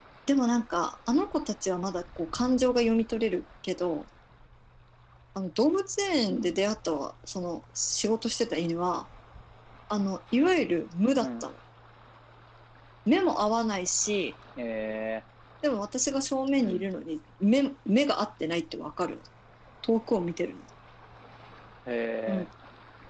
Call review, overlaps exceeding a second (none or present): none